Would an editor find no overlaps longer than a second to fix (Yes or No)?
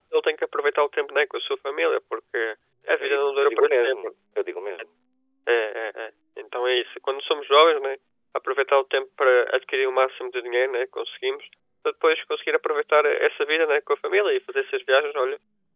No